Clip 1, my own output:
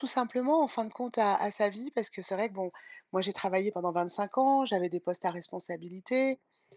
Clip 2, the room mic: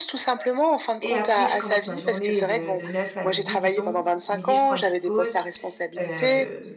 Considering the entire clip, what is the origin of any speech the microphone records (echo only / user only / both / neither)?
both